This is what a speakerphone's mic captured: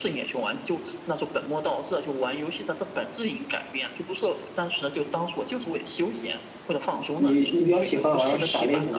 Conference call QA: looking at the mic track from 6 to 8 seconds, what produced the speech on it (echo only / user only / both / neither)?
both